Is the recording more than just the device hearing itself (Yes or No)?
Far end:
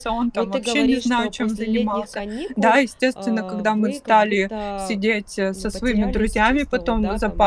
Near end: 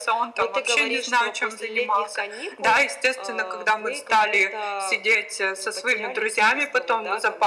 No